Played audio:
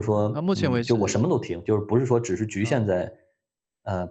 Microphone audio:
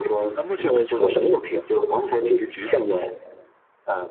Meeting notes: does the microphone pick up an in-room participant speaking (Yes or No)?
No